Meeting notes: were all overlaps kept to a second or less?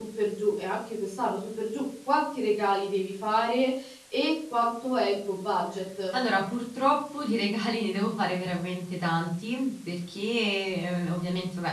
Yes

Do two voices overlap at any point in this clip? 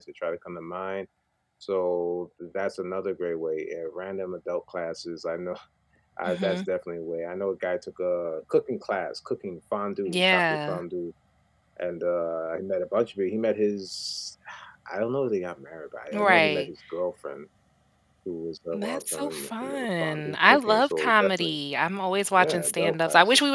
Yes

